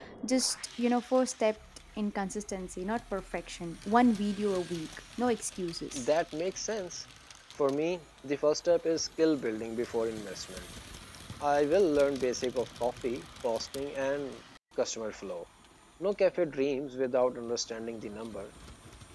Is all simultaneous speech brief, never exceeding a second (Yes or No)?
Yes